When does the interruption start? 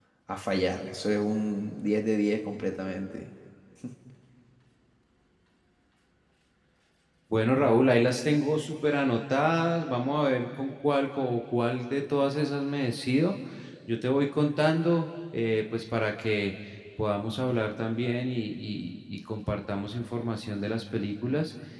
none

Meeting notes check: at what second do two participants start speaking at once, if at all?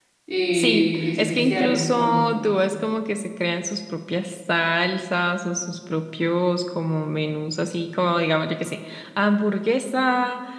0.5 s

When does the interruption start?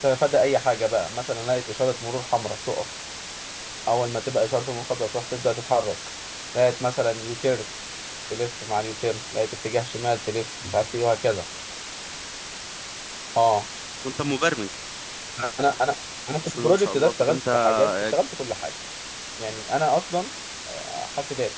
16.5 s

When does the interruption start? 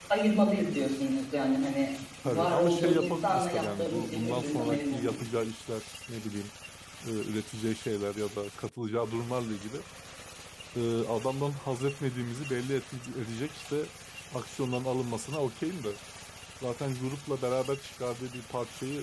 2.2 s

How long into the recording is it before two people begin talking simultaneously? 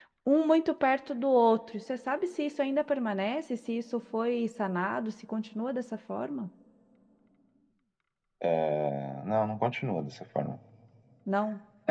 none

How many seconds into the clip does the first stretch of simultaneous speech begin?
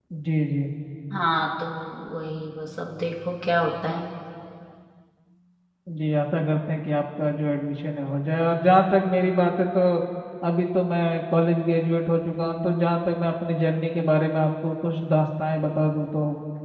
none

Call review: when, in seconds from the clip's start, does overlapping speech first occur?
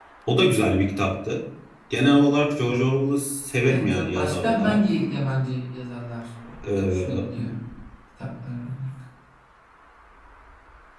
3.6 s

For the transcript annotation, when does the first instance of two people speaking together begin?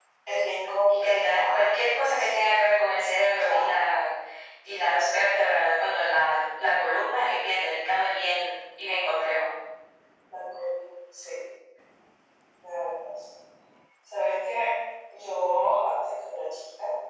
1.0 s

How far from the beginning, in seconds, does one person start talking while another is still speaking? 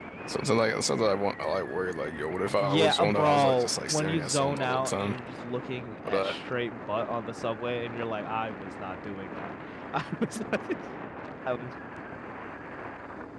2.6 s

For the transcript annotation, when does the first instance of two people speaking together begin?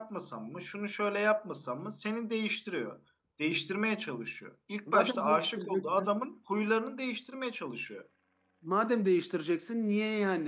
4.9 s

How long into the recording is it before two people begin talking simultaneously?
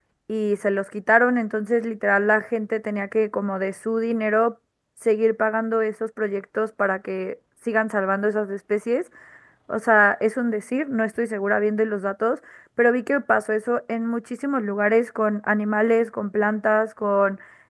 none

